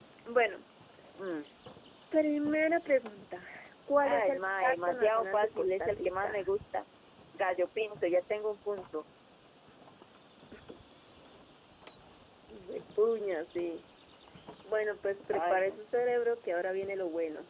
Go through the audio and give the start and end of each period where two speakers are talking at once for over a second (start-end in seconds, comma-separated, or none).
4.0-6.5